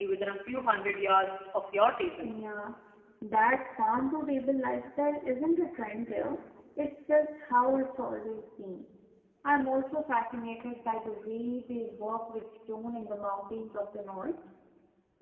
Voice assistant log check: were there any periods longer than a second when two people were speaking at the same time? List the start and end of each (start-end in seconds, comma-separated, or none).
none